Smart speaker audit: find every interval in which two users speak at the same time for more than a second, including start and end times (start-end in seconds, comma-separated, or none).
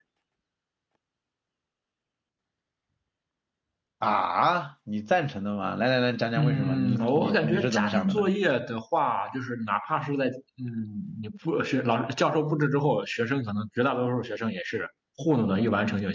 6.4-8.3